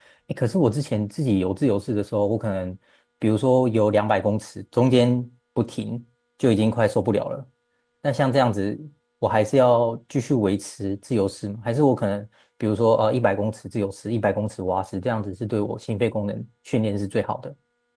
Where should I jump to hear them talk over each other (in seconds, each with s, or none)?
none